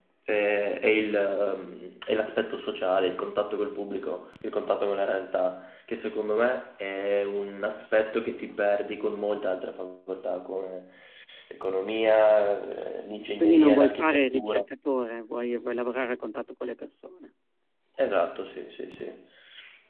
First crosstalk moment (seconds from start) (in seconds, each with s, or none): 13.4 s